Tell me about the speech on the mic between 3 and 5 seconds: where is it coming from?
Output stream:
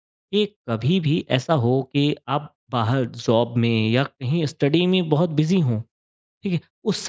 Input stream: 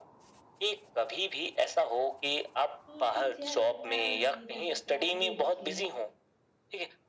both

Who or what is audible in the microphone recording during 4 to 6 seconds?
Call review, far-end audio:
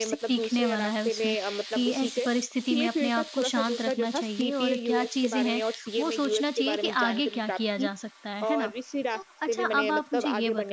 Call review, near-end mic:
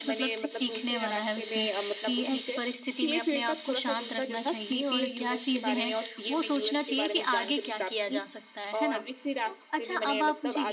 echo only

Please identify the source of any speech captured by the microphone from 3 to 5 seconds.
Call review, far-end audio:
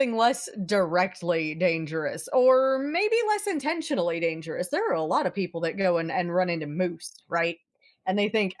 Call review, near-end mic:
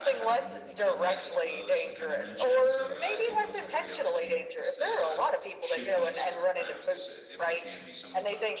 both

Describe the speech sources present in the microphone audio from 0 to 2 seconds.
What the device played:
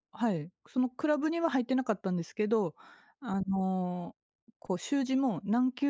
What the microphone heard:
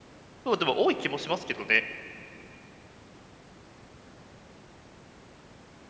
user only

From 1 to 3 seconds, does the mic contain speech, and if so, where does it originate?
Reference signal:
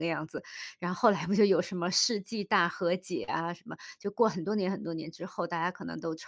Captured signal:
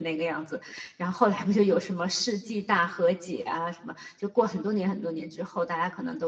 echo only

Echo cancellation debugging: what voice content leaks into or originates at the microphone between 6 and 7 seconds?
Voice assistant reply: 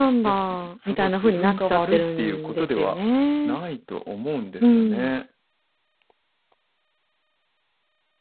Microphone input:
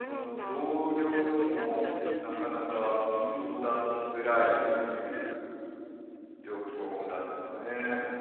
user only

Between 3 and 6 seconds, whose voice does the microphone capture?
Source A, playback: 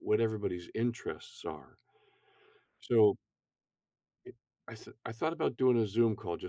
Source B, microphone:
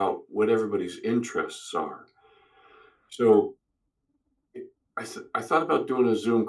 echo only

